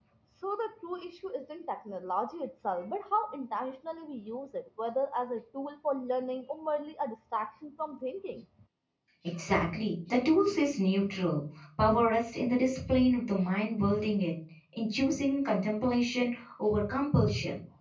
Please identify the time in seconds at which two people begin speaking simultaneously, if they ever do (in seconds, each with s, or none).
none